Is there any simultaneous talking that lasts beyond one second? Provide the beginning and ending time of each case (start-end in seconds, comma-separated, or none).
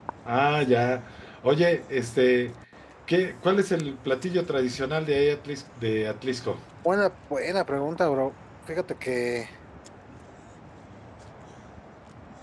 none